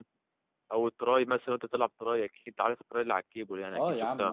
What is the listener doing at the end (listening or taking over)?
taking over